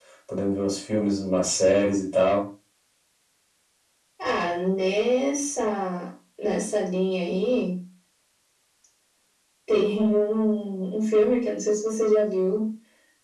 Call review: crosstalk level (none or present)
none